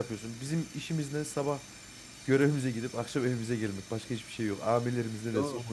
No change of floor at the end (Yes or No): No